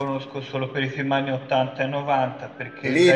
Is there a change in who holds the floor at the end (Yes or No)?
Yes